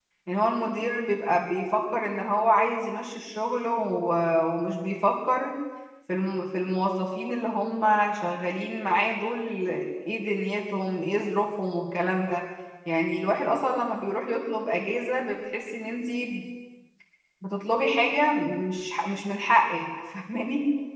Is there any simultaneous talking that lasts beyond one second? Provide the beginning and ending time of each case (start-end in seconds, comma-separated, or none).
none